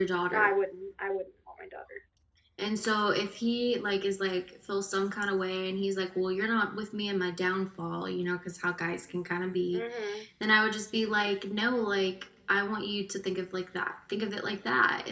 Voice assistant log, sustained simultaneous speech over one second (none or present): none